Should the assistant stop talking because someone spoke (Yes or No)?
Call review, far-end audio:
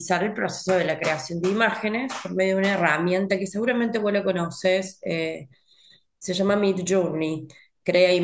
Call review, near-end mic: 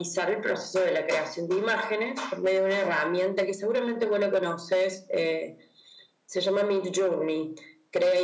No